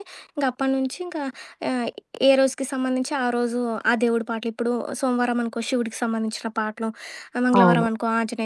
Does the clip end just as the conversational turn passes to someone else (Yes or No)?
No